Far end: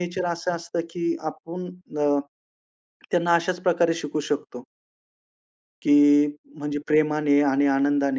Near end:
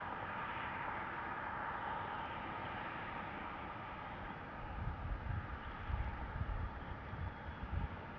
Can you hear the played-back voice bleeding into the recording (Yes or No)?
No